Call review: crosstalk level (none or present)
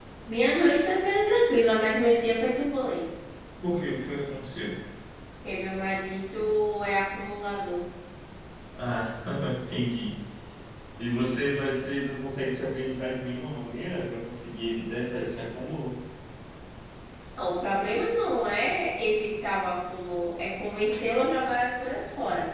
none